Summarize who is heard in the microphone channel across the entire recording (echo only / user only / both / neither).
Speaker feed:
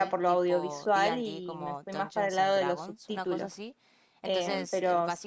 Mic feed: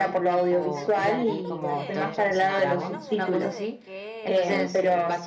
both